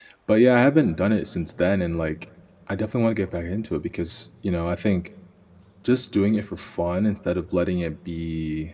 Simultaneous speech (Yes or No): No